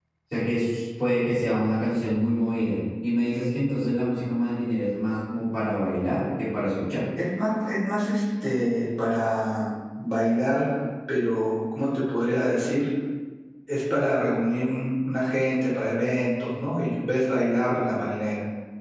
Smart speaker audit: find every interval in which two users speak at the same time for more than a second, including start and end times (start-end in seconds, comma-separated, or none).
none